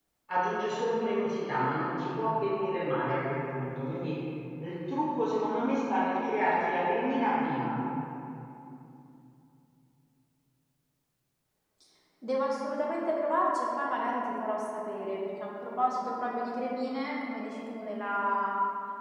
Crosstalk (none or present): none